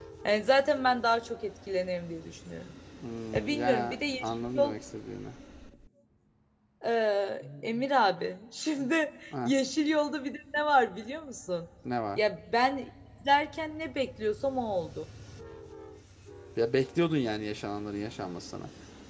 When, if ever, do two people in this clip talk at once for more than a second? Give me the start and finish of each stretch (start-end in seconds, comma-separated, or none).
3.3-4.8